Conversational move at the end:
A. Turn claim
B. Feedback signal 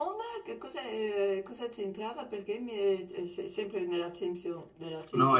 A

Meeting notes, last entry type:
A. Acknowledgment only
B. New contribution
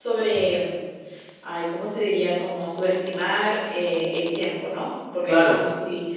A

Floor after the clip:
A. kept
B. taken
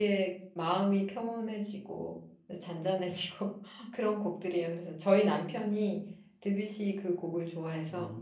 B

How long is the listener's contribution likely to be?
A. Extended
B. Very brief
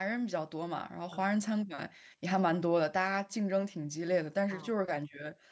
B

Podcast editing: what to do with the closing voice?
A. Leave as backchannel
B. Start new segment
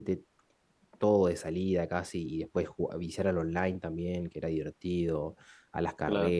A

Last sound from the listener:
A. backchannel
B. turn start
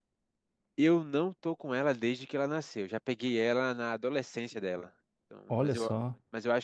A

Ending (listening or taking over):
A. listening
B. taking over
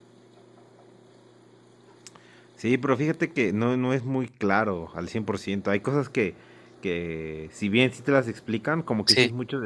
A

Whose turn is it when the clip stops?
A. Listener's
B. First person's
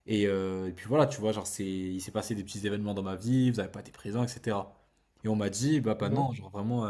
B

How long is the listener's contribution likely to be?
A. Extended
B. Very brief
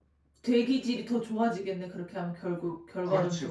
A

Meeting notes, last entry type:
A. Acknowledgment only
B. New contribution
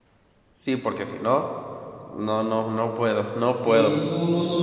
B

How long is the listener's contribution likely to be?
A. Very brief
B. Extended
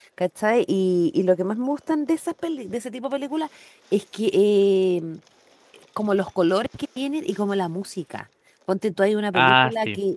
A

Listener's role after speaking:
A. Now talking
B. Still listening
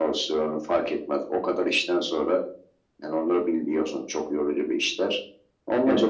B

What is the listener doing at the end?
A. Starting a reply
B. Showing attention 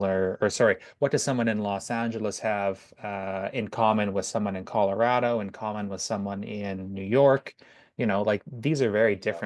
B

